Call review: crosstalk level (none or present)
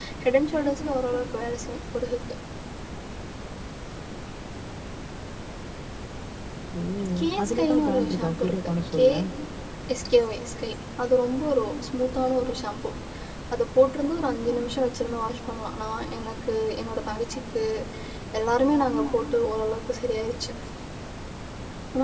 present